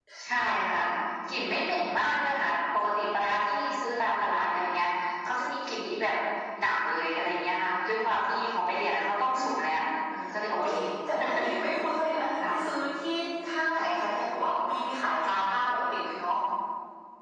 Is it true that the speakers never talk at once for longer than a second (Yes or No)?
Yes